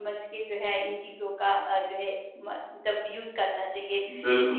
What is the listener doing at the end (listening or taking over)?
taking over